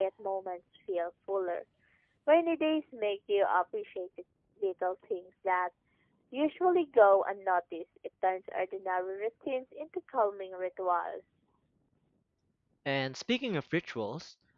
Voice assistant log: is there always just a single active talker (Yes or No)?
Yes